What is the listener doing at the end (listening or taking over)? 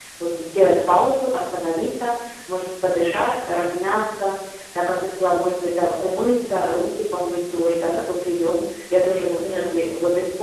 listening